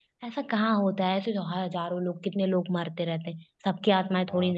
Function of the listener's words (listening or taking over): taking over